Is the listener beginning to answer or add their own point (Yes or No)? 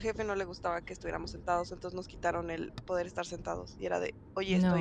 No